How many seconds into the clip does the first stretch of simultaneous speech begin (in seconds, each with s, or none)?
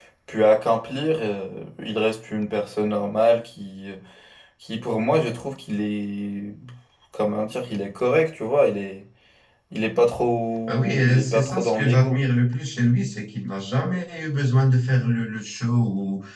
10.7 s